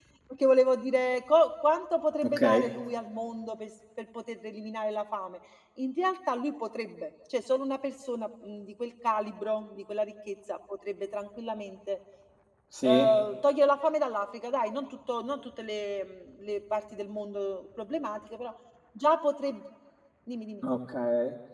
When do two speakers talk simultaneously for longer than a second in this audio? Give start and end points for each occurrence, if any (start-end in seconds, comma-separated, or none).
none